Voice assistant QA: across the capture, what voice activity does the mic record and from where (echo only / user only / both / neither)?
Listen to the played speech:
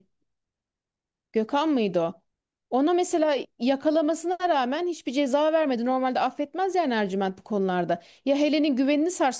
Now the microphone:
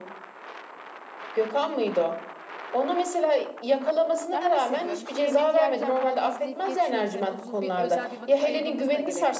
both